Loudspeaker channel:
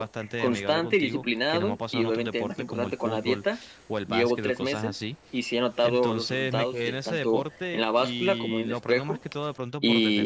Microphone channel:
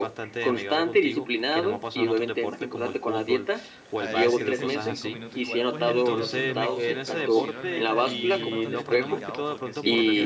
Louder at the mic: echo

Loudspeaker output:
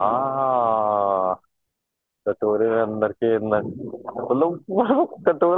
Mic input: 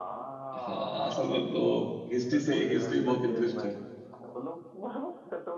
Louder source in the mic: user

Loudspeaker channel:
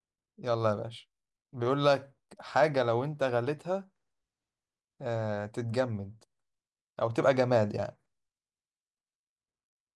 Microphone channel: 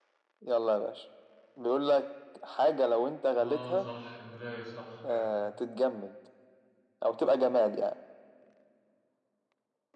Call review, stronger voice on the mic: echo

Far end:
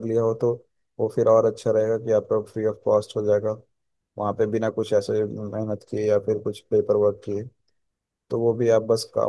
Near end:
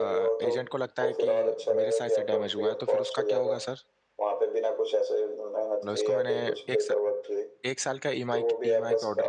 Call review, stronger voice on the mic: echo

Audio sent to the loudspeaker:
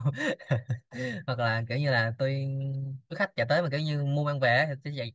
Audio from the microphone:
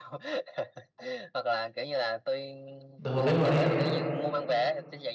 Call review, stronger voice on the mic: user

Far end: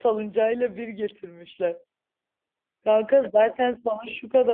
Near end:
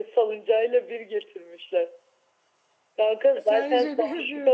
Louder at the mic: echo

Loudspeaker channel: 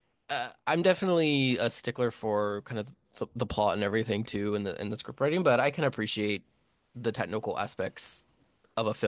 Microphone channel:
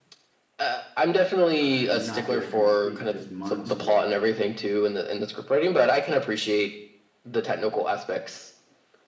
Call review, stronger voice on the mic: echo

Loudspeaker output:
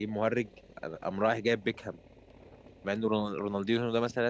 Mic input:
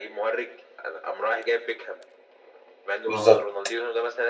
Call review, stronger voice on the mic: user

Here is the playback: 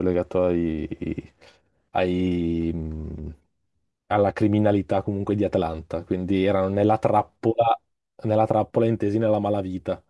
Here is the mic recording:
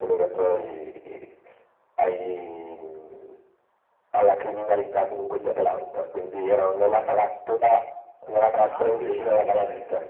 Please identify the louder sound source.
echo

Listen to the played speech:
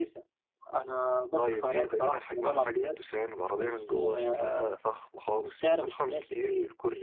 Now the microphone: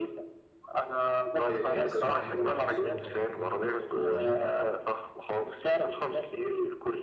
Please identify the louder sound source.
echo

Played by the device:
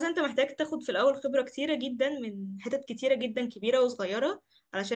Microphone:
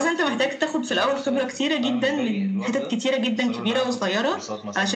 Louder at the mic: echo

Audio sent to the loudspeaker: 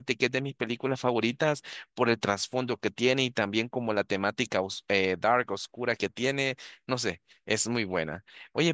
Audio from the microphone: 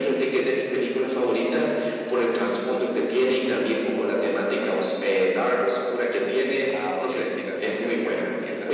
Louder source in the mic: echo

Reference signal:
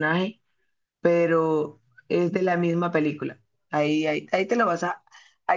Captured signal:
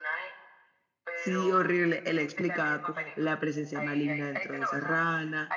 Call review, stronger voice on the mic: user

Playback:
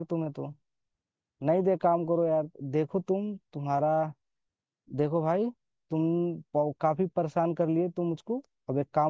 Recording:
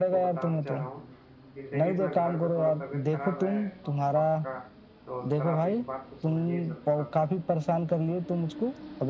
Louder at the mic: echo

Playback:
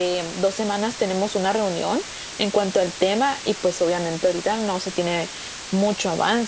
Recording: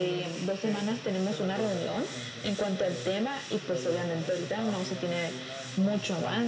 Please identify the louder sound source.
echo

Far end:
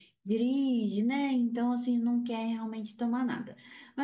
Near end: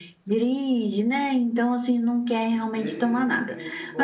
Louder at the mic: echo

